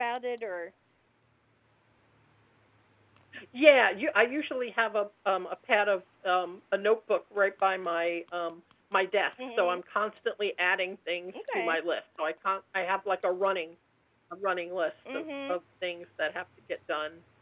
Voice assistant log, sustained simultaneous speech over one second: none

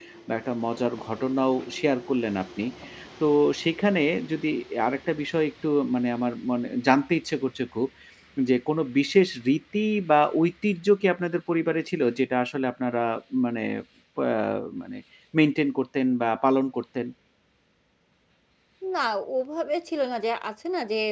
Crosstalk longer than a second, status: none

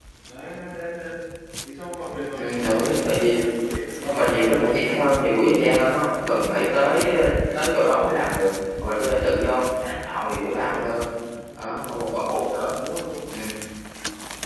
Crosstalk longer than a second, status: present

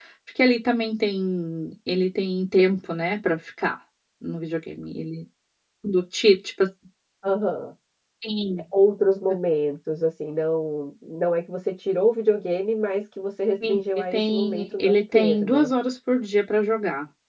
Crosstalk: present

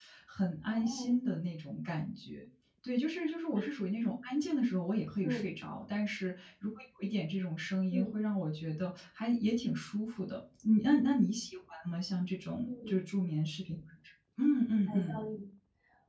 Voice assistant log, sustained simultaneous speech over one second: none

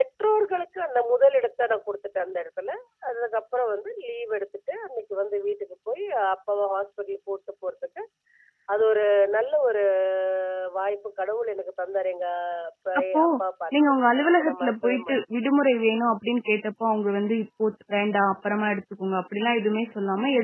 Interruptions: present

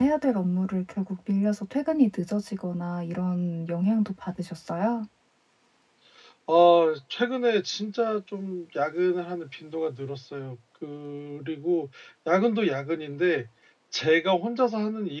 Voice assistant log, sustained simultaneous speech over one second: none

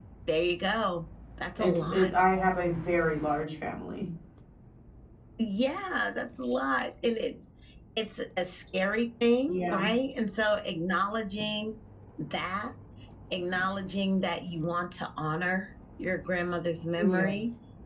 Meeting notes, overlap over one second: none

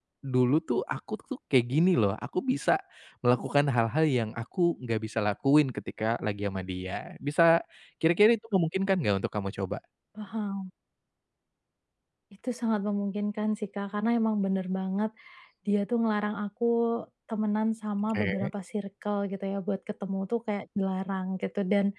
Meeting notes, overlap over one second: none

